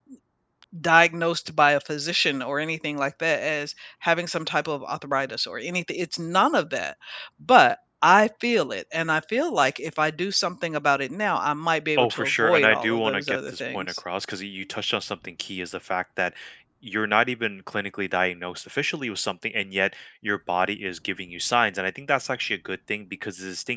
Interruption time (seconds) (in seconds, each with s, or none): 12.0 s